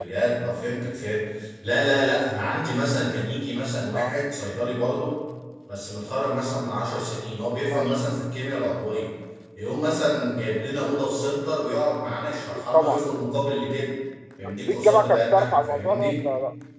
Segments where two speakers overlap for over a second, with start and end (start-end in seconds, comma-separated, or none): 14.5-16.2